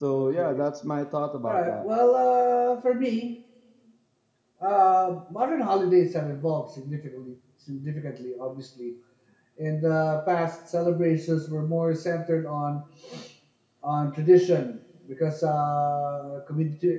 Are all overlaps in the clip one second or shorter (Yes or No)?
Yes